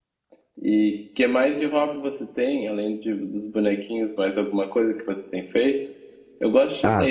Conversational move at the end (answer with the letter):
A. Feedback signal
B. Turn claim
B